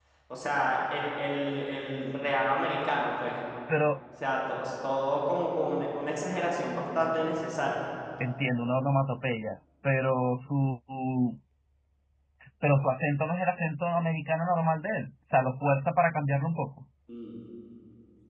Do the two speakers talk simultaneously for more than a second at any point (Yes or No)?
No